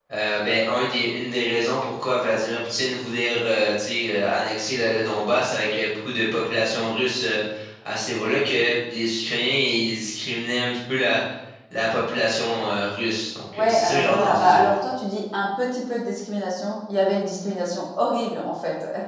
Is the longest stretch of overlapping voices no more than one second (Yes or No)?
No